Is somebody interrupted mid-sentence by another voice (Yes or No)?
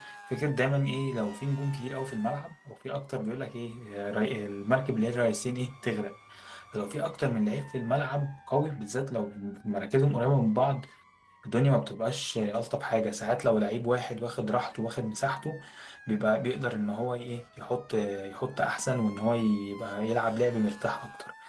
No